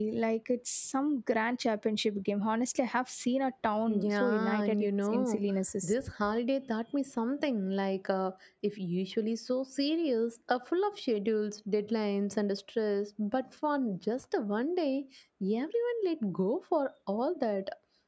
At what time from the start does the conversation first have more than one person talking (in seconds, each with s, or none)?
3.9 s